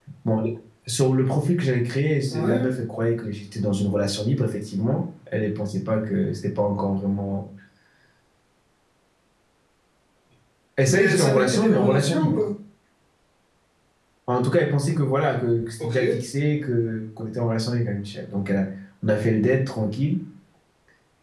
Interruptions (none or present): present